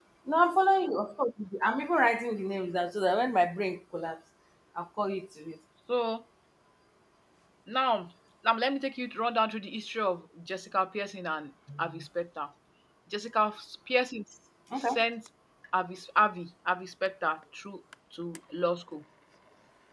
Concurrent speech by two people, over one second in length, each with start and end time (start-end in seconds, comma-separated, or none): none